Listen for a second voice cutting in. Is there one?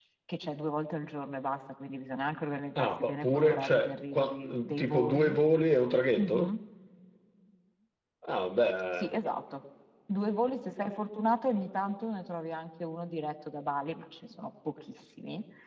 Yes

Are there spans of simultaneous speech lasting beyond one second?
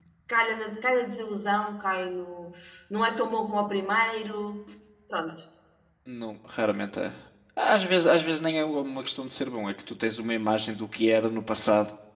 No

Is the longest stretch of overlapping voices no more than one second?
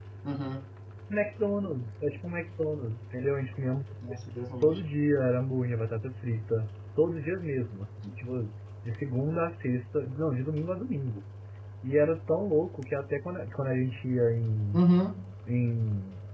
Yes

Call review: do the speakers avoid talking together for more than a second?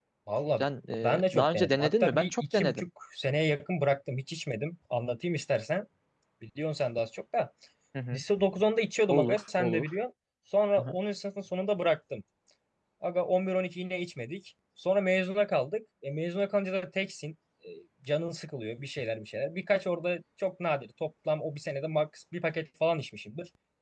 No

